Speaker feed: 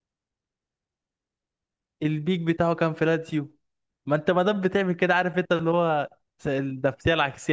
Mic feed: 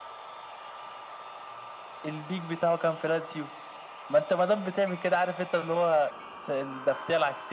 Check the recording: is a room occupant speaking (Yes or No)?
No